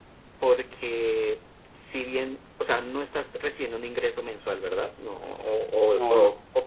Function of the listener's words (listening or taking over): listening